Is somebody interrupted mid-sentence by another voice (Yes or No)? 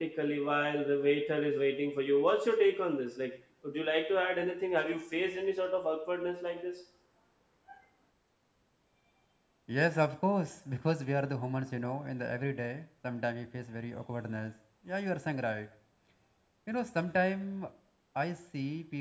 No